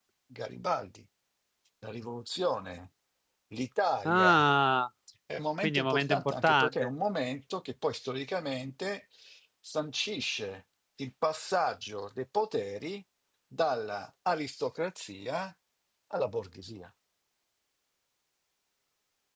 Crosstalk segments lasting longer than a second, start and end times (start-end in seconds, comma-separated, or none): 5.6-6.9